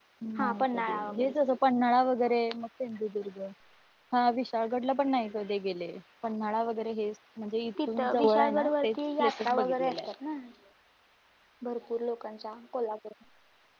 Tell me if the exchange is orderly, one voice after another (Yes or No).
No